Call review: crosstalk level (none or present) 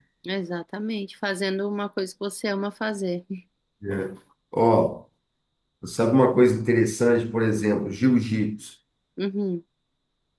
none